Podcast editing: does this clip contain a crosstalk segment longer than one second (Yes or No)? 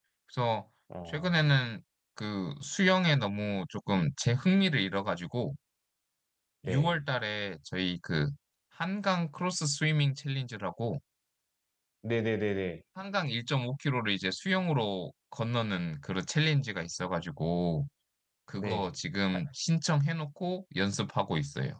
No